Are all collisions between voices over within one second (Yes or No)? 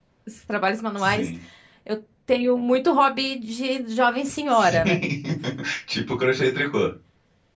Yes